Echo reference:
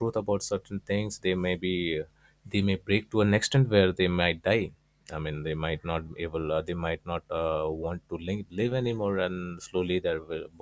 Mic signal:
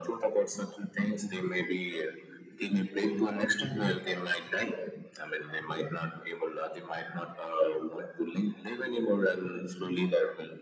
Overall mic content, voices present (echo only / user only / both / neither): echo only